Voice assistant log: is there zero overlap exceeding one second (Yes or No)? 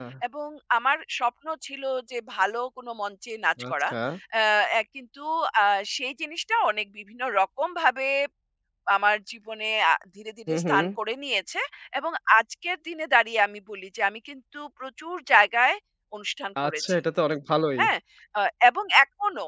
Yes